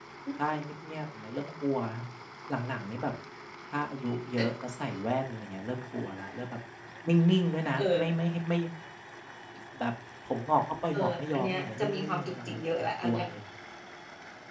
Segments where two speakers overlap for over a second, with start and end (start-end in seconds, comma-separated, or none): 10.9-12.6